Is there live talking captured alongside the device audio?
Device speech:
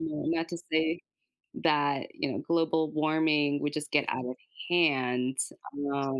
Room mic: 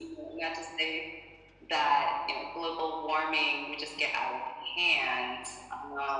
No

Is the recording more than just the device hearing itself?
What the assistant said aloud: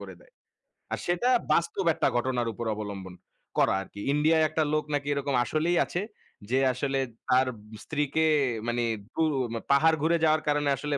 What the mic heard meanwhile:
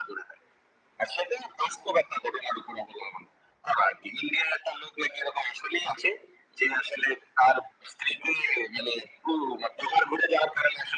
No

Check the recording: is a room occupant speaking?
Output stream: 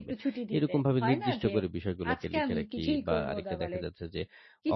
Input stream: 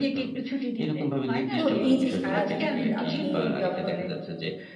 Yes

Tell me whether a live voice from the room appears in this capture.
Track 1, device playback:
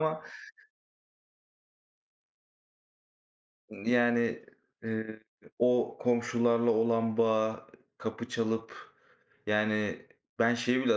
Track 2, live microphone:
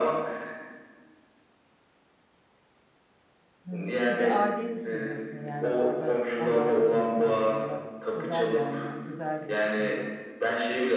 Yes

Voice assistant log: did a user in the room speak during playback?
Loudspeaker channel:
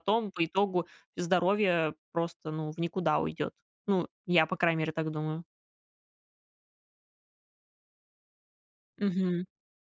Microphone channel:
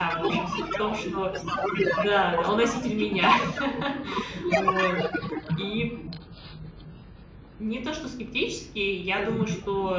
Yes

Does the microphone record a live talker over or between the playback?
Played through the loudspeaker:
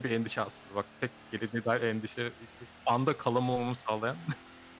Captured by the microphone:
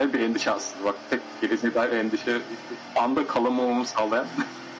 No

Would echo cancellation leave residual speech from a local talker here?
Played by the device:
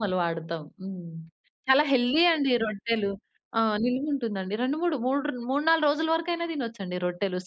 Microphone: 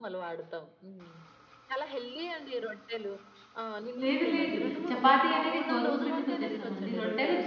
Yes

